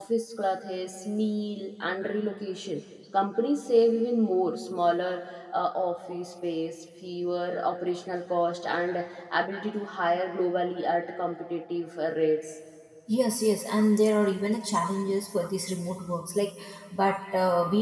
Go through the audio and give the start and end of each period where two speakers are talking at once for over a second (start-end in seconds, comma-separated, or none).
none